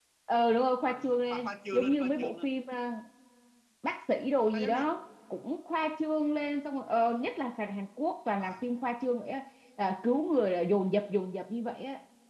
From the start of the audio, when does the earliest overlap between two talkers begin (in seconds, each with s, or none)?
0.8 s